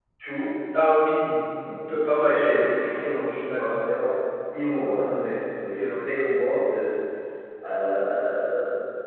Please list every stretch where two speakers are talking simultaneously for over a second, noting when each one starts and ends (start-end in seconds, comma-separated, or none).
2.3-3.7